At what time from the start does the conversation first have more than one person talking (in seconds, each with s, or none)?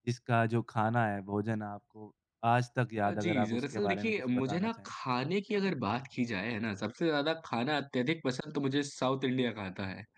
3.0 s